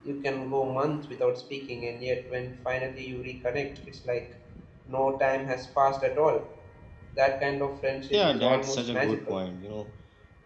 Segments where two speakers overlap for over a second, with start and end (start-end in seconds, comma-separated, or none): 8.1-9.4